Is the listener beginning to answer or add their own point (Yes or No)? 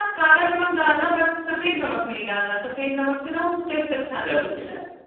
Yes